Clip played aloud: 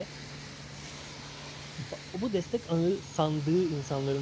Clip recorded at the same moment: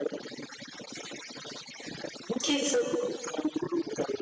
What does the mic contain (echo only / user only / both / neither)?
both